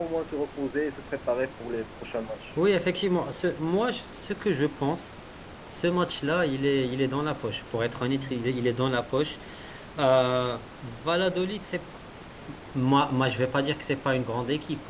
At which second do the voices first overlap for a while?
none

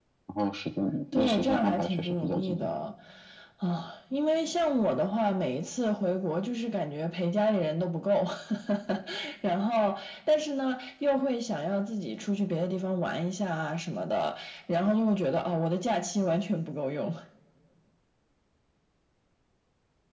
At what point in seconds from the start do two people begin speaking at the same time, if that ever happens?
1.1 s

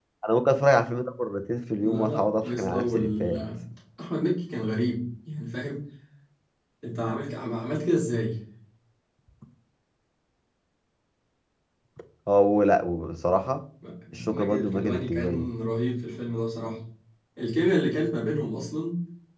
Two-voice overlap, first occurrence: 1.8 s

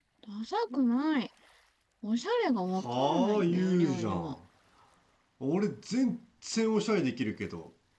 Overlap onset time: 2.8 s

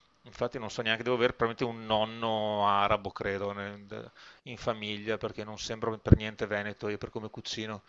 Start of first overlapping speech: none

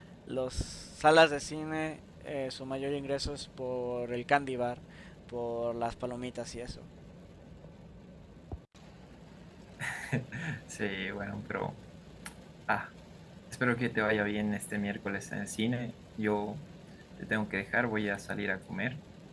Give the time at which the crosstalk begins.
none

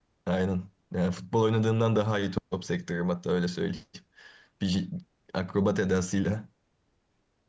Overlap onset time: none

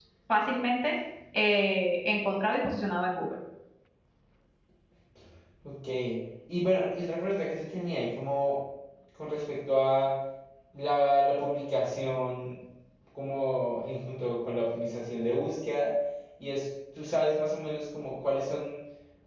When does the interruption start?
none

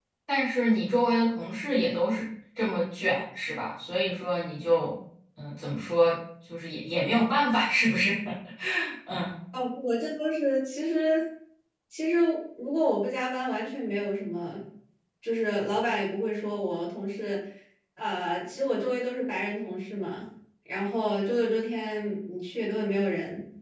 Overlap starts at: none

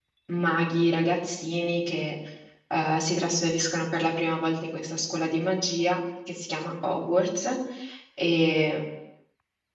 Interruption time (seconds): none

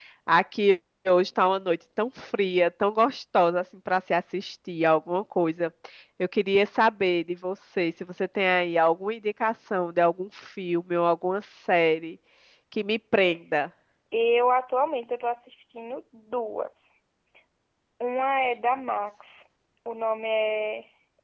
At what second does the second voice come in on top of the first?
none

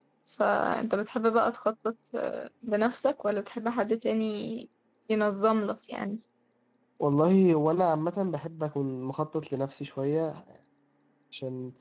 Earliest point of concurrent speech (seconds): none

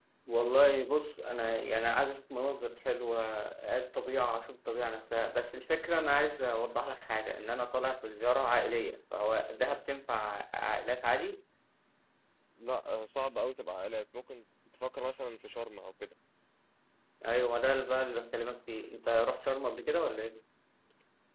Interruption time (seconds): none

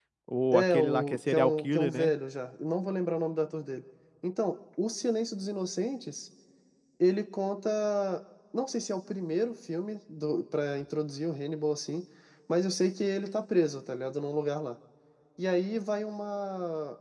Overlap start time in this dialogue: 0.5 s

